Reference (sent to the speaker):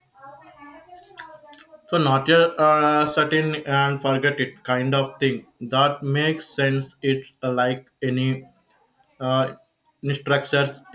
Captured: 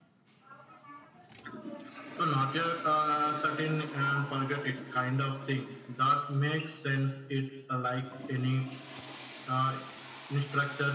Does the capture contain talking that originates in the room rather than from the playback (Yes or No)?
No